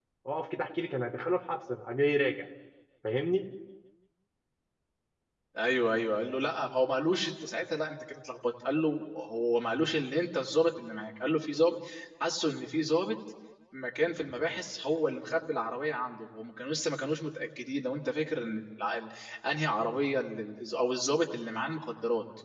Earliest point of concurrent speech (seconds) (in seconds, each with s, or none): none